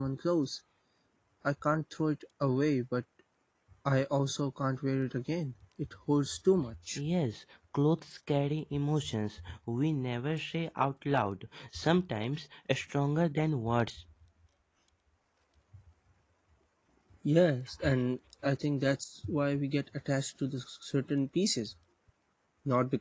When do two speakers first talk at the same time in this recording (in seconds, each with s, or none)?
none